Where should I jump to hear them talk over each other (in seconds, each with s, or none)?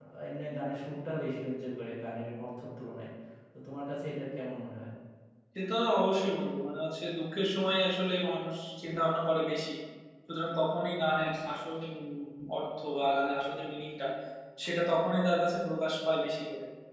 none